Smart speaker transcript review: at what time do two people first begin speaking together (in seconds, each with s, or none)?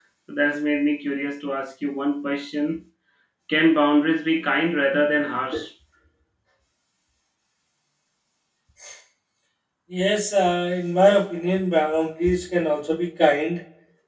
none